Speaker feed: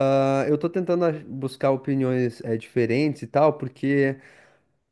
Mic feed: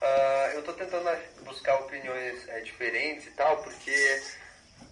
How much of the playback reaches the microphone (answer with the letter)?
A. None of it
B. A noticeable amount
B